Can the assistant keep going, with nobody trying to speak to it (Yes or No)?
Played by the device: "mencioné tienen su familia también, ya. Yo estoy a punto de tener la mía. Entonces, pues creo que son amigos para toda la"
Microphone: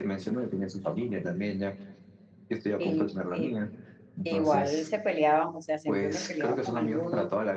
No